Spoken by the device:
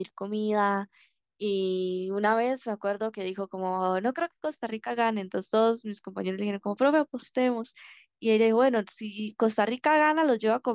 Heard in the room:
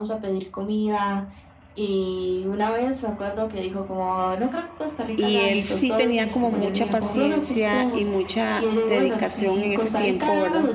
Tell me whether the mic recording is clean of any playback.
No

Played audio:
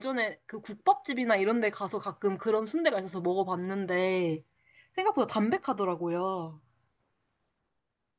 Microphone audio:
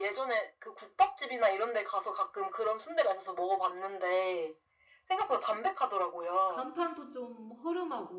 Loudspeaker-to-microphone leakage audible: Yes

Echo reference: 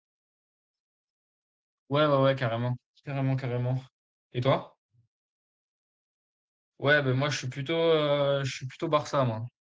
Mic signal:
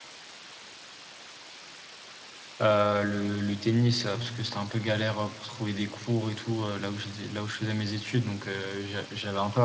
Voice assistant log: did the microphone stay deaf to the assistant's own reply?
Yes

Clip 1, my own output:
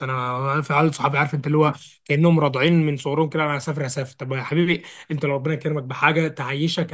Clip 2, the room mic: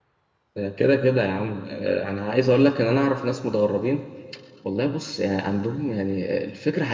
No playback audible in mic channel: Yes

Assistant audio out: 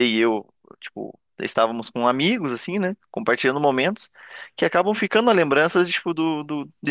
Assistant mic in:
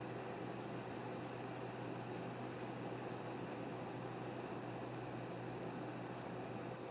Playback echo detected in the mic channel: No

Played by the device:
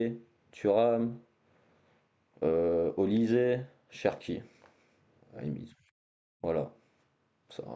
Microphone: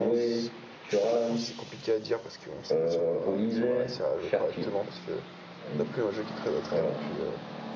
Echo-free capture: No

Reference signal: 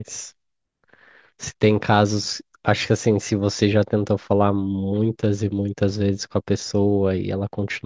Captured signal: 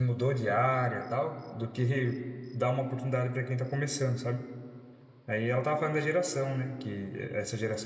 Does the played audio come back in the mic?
No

